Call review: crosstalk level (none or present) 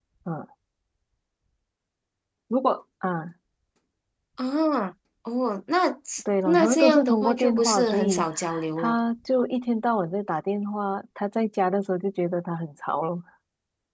present